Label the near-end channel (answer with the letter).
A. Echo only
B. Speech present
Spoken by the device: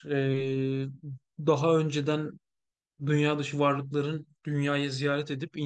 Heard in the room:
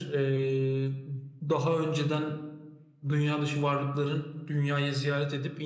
A